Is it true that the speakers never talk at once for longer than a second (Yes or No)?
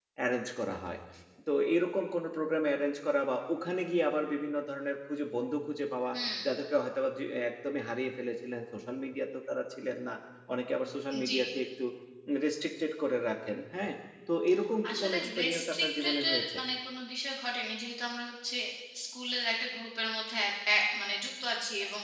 No